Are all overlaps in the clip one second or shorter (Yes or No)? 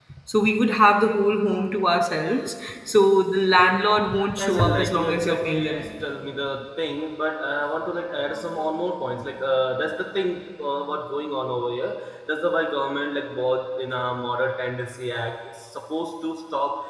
No